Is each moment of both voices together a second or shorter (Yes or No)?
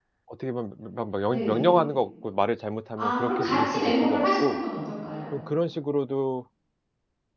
No